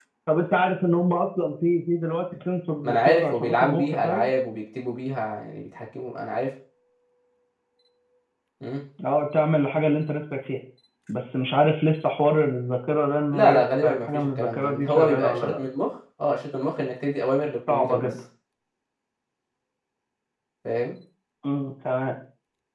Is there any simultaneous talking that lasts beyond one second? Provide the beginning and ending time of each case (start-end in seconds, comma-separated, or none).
2.8-4.3, 13.3-15.6